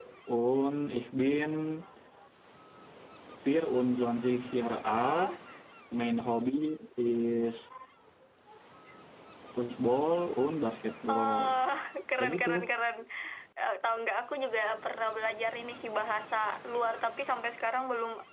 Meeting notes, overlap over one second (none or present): none